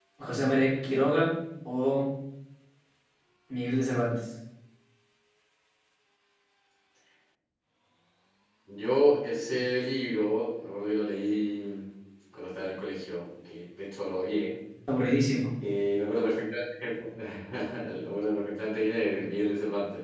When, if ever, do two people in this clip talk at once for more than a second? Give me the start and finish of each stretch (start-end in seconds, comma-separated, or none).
none